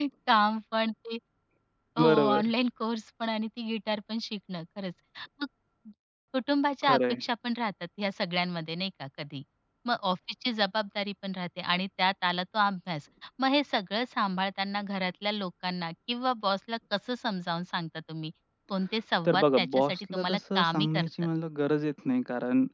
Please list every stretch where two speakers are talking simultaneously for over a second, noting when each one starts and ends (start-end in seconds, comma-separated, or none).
19.3-21.1